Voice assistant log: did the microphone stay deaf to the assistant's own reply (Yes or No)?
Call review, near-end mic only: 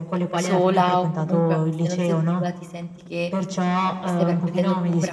No